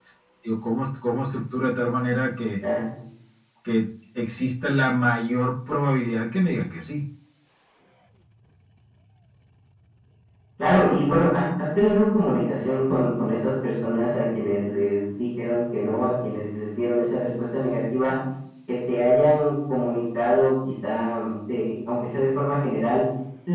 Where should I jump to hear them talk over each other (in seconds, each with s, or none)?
none